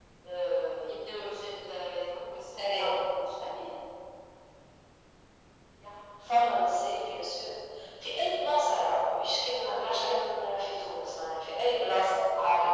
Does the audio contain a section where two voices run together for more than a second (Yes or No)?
No